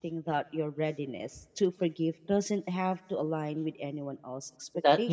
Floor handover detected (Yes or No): Yes